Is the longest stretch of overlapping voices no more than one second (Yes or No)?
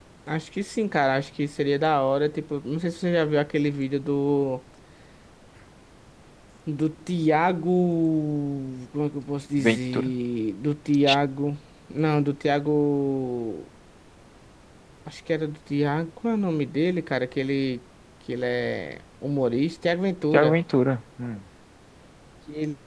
Yes